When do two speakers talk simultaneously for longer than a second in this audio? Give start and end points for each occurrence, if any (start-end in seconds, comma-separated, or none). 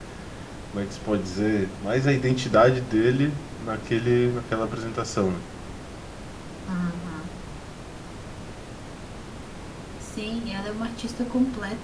none